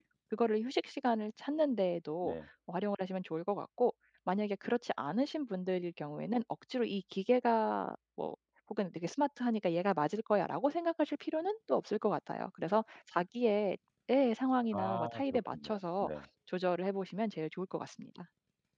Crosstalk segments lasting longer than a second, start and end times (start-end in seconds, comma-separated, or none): 14.7-16.2